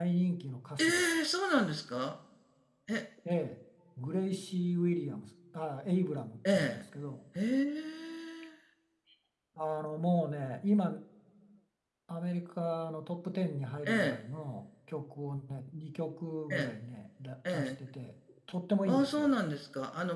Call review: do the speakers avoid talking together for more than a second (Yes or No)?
Yes